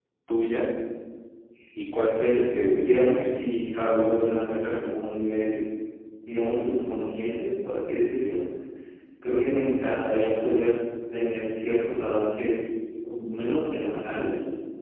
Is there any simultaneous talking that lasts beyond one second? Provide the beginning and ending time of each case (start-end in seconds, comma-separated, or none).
2.1-3.4